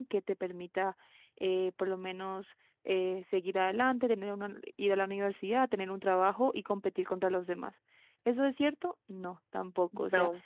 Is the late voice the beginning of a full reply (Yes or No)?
No